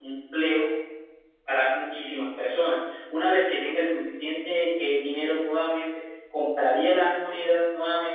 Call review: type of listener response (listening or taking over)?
listening